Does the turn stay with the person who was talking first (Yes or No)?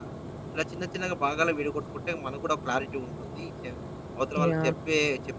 Yes